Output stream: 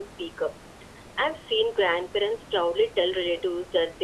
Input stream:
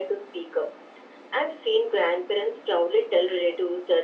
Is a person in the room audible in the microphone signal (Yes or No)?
No